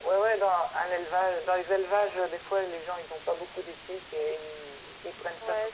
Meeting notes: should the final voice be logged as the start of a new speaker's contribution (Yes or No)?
Yes